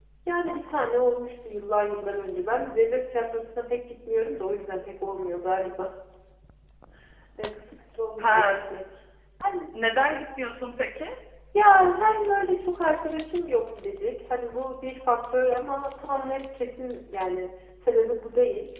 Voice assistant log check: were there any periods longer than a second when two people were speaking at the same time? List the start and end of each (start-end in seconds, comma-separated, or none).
none